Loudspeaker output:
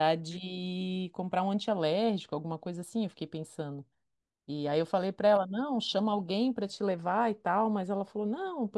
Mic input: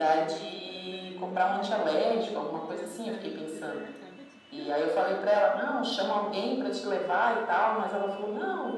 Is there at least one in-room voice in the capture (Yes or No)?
Yes